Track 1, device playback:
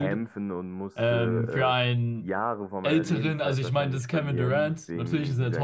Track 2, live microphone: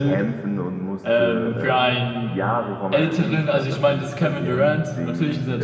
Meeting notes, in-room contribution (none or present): none